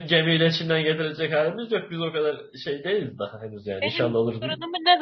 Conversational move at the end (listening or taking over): taking over